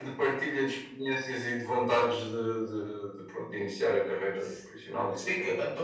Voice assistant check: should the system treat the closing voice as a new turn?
Yes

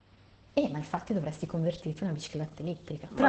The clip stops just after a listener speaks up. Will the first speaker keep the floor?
No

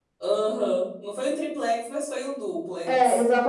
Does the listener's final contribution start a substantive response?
Yes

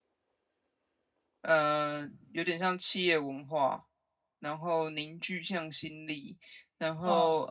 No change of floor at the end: Yes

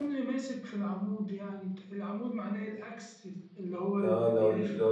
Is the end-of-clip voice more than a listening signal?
Yes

